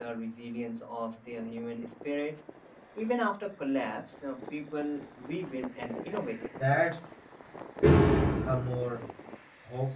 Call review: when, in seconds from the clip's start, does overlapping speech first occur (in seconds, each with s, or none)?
none